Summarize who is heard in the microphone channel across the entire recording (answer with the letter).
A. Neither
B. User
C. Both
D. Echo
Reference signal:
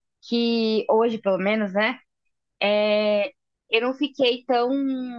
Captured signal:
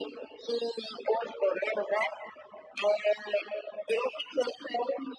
D